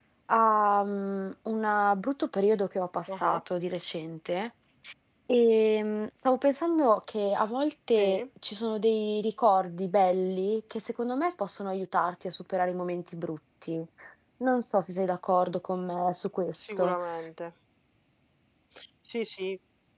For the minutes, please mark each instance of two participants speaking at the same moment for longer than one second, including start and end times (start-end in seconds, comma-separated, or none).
none